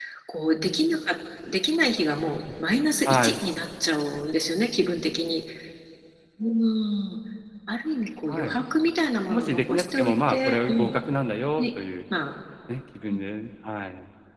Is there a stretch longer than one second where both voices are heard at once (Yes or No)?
Yes